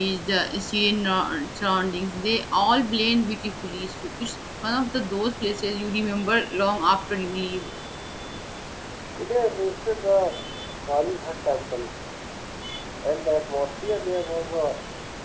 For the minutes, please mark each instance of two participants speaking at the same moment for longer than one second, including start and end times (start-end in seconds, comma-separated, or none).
none